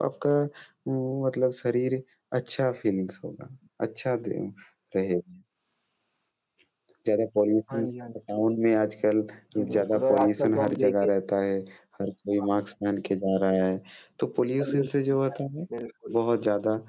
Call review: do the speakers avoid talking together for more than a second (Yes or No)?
No